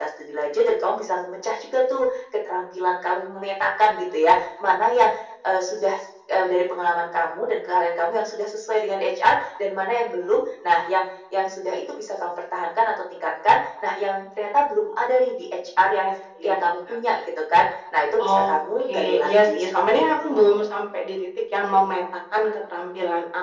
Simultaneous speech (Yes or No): Yes